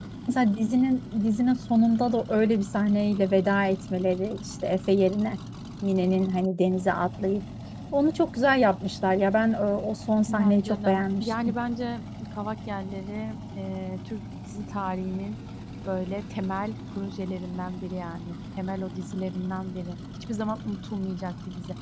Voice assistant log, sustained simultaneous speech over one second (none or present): present